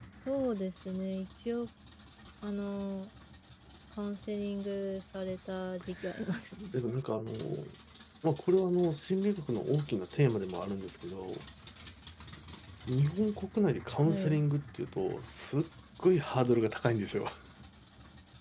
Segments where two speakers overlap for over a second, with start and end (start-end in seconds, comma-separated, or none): none